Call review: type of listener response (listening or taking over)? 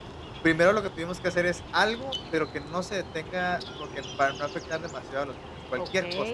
taking over